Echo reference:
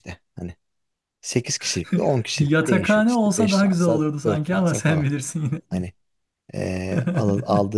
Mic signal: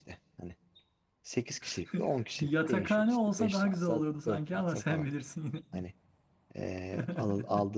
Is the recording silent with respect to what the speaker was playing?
No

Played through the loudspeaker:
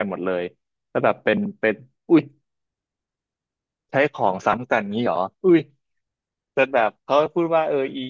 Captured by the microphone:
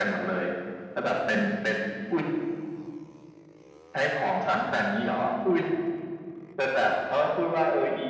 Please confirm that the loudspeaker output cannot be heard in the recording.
No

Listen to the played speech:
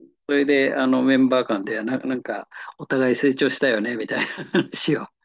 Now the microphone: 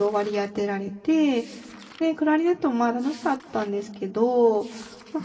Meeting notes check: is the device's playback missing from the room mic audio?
Yes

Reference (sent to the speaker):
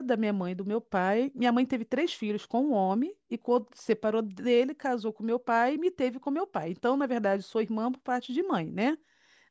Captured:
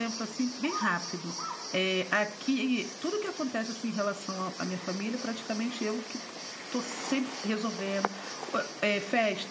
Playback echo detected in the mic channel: No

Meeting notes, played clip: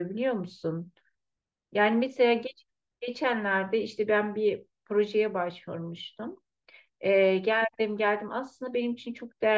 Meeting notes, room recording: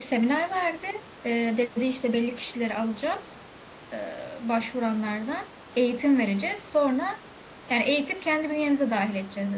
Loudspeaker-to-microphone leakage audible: No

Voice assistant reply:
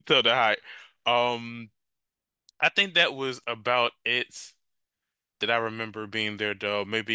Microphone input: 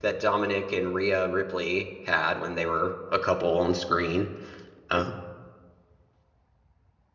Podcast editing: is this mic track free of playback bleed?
Yes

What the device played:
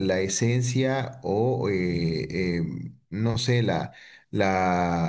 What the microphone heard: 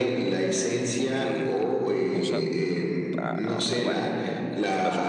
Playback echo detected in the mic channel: Yes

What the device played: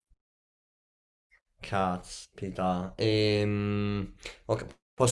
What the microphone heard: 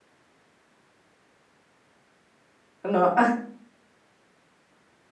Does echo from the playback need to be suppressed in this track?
No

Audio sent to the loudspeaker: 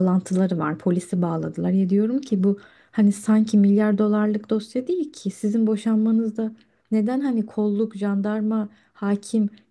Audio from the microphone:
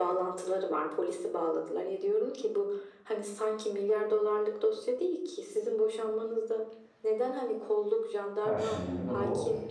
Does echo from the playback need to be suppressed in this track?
Yes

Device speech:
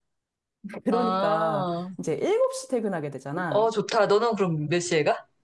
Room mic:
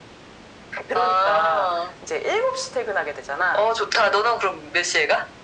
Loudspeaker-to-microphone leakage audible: Yes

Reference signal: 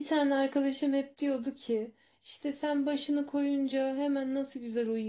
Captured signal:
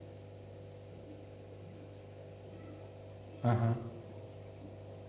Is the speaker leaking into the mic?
No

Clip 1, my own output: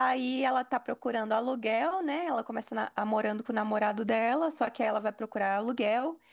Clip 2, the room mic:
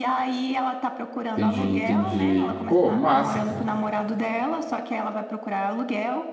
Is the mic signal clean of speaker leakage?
No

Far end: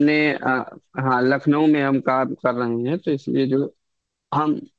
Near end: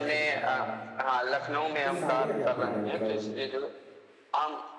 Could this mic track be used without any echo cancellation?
No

